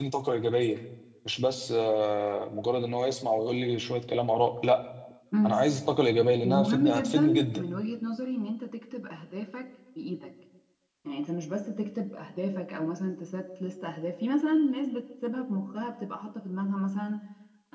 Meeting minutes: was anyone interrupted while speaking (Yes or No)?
Yes